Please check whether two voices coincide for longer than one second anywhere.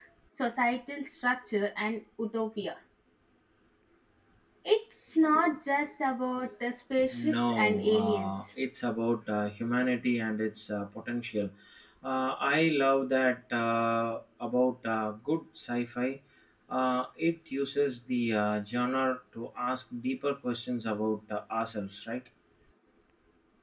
Yes, from 7.1 s

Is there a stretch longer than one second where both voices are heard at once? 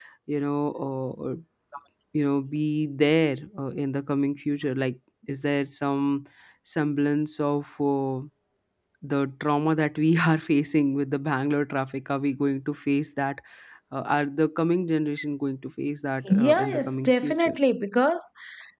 Yes, from 16.2 s

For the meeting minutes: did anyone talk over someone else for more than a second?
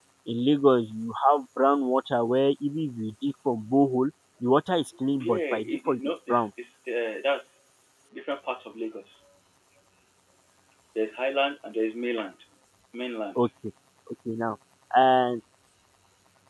Yes, from 5.2 s

